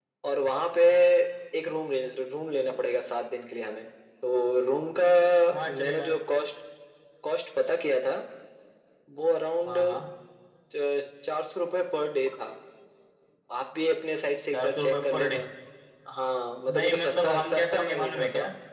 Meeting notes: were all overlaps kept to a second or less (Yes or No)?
No